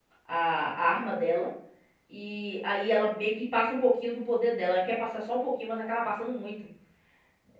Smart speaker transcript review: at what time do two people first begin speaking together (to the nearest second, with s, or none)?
none